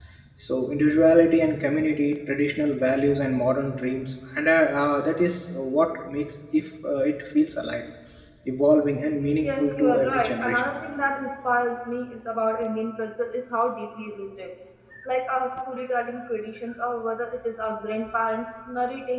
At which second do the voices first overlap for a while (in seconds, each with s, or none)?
9.4 s